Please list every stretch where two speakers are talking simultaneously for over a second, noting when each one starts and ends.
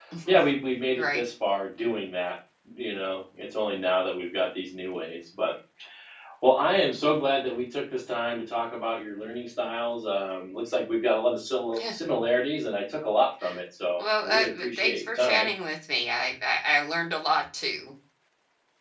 14.0-15.5

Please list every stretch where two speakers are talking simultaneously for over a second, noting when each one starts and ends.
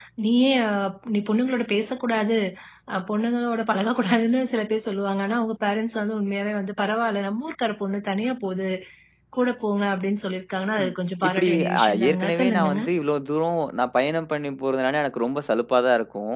11.3-12.8

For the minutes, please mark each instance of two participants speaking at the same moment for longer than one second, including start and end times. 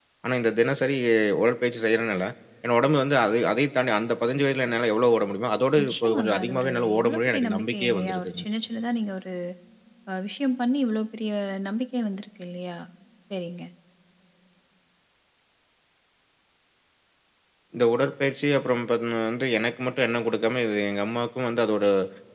5.8-8.4

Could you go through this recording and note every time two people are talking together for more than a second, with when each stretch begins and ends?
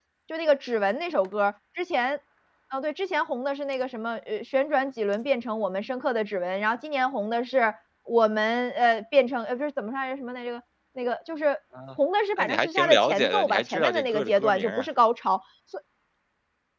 12.4-14.9

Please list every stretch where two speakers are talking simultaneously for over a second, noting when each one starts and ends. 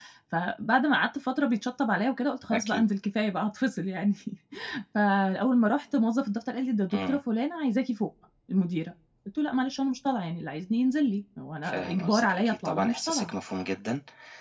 11.6-13.3

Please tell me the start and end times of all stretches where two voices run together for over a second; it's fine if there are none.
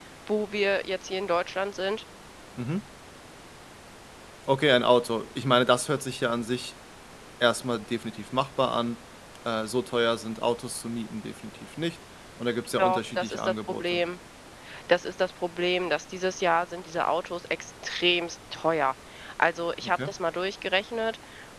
12.8-14.0

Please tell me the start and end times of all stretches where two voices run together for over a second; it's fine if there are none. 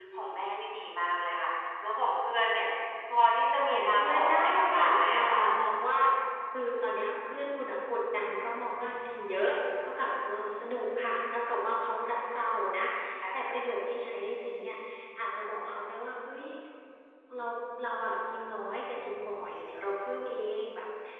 3.6-5.4

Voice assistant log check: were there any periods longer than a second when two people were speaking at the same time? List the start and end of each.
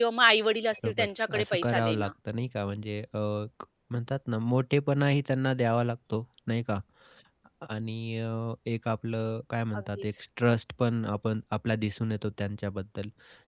0.7-2.1

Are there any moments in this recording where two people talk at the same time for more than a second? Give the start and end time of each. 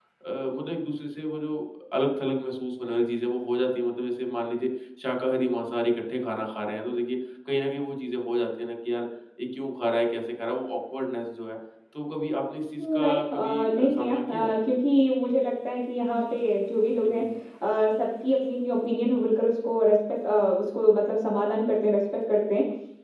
12.8-14.5

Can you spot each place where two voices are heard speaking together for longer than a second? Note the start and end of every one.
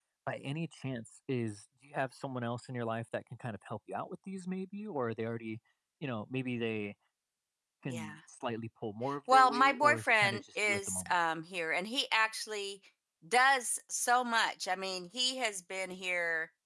9.3-11.1

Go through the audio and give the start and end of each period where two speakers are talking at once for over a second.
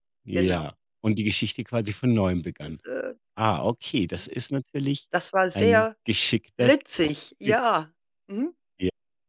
none

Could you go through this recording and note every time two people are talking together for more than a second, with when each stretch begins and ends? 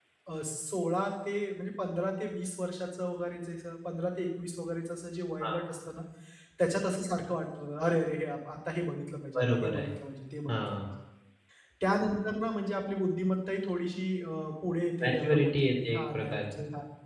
15.0-16.5

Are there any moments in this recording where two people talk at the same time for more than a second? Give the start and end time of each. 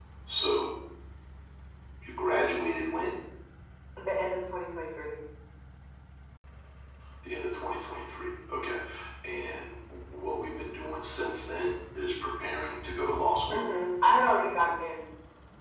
none

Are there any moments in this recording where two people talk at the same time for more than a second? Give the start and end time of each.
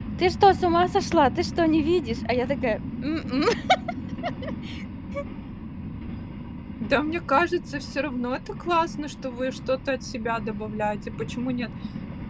none

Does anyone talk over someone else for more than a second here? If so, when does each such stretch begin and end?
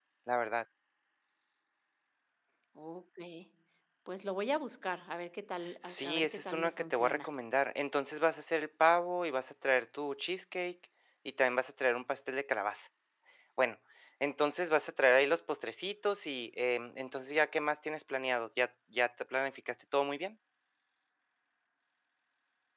5.8-7.3

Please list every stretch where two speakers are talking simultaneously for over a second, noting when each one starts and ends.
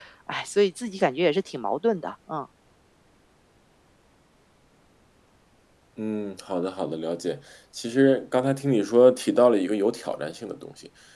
none

